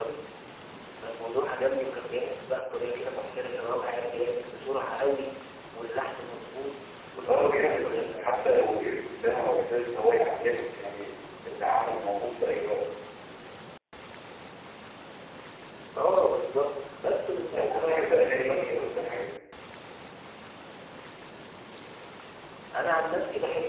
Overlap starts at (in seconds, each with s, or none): 7.3 s